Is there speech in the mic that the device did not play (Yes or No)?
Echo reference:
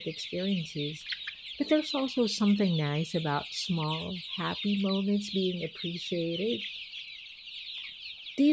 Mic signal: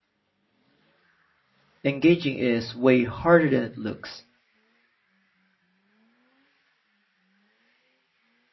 Yes